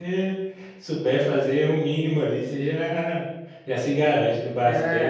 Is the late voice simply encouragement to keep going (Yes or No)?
No